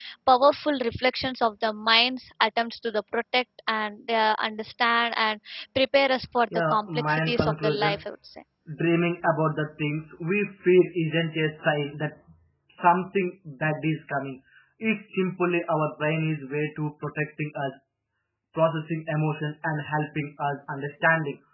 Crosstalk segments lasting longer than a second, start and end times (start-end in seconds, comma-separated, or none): 6.7-8.0